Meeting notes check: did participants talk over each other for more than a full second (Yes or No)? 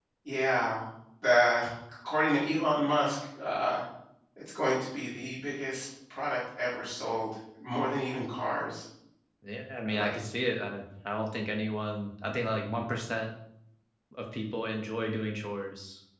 No